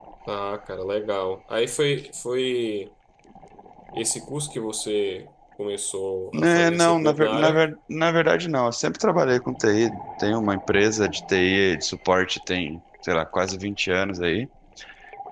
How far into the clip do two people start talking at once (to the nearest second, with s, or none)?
6 s